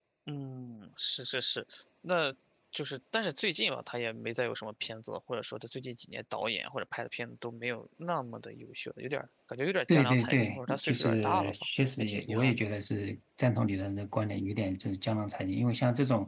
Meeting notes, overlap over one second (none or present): present